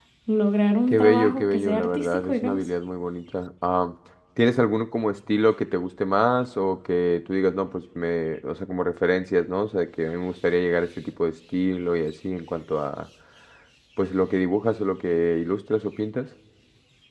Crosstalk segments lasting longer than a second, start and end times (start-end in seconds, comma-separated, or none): 0.9-2.7